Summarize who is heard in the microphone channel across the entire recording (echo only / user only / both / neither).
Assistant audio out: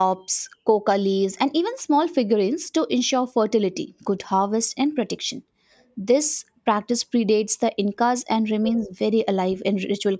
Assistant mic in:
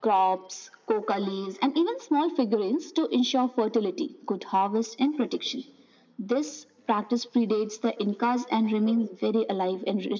echo only